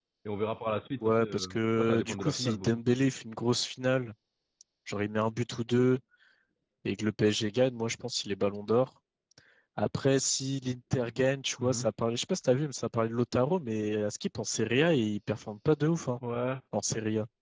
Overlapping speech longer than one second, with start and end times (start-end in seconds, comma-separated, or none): 1.1-2.8